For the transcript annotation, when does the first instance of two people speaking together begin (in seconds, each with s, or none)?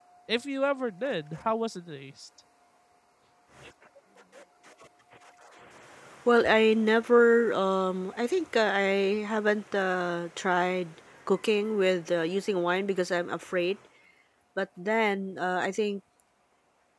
none